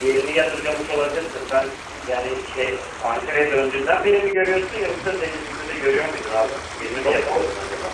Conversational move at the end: taking over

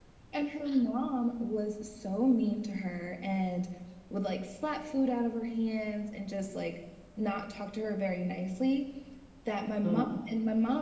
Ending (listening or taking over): listening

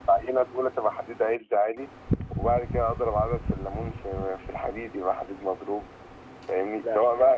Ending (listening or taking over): listening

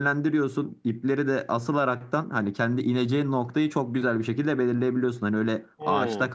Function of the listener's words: listening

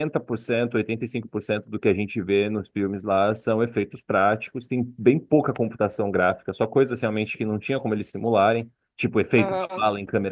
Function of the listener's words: listening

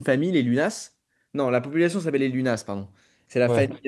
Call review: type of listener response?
listening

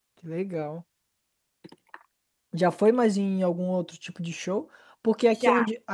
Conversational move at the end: listening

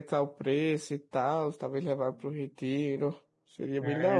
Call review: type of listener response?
taking over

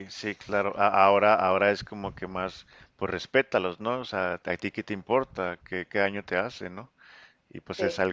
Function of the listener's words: listening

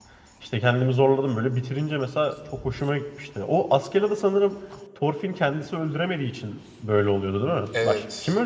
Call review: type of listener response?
taking over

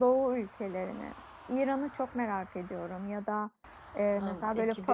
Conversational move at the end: listening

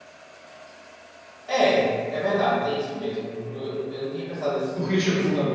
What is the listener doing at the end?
taking over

